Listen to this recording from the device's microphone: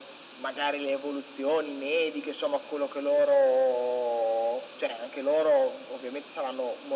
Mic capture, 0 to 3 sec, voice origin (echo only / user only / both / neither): echo only